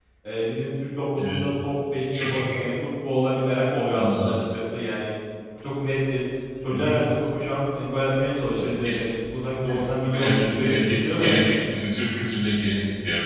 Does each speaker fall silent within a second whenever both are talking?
No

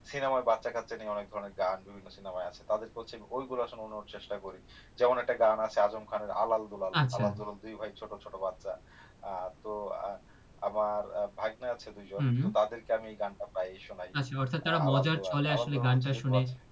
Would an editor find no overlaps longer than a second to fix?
No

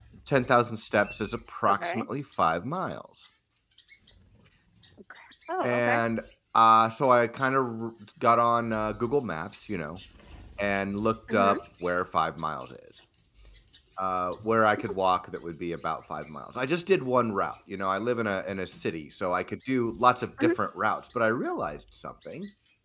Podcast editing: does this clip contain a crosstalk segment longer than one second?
No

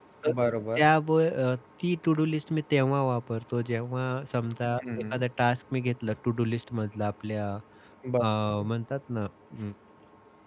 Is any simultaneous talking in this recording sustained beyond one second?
No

